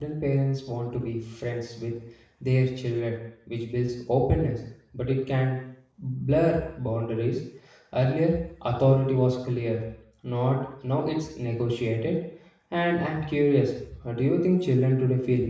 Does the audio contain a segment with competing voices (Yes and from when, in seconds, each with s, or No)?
No